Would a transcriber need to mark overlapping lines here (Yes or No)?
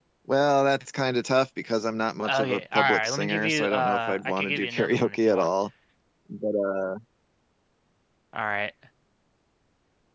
Yes